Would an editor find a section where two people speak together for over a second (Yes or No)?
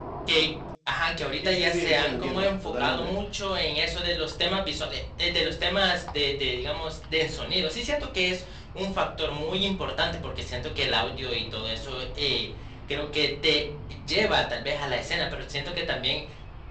Yes